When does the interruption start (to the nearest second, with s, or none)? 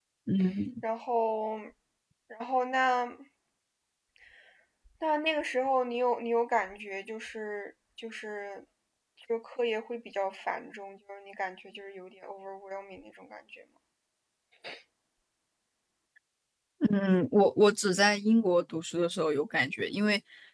none